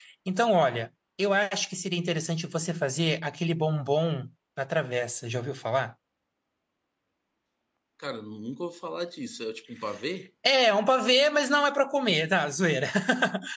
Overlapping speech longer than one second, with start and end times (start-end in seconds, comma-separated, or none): none